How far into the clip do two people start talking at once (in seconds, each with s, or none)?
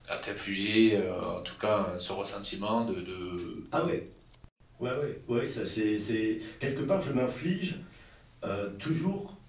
none